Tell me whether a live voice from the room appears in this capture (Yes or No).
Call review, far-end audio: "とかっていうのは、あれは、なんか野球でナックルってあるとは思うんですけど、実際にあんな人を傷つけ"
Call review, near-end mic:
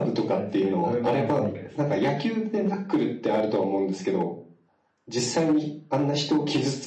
Yes